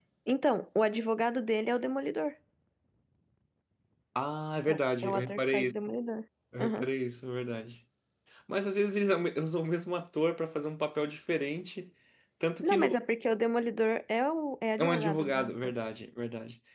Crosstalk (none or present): present